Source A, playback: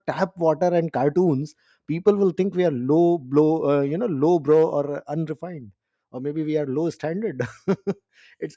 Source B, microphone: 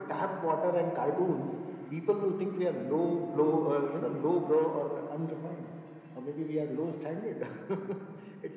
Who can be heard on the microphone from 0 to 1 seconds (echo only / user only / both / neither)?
echo only